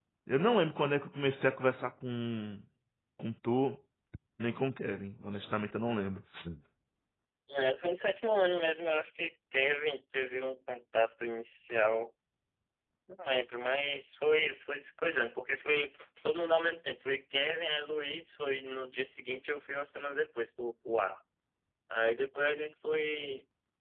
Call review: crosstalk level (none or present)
none